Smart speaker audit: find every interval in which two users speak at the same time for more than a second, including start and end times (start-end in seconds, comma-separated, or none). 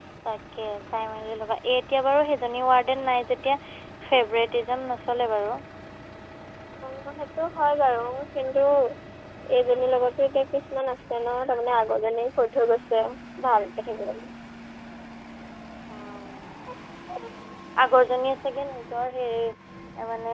none